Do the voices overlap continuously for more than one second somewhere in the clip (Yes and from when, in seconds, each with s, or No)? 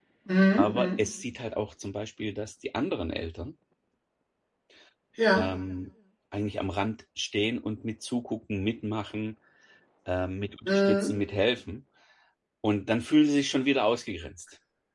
No